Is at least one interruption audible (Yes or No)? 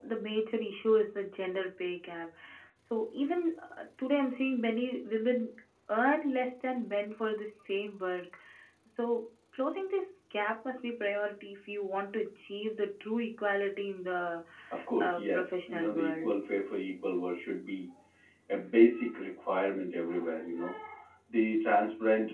Yes